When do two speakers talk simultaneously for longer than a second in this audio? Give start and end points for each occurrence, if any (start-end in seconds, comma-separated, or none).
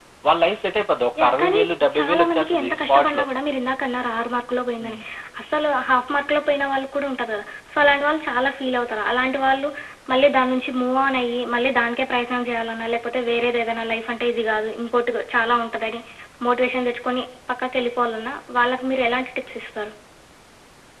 2.0-3.2